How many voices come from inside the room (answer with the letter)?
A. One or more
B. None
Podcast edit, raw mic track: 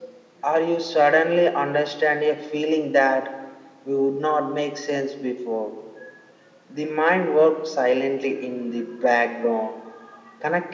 B